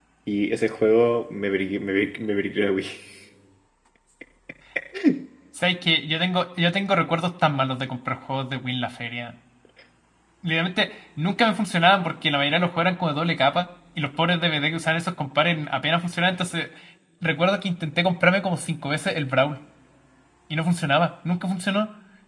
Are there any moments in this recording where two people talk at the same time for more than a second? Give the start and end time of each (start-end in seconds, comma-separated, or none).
none